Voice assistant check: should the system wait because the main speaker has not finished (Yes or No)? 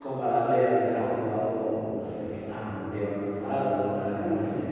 Yes